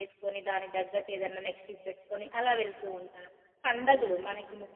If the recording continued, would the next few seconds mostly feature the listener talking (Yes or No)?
No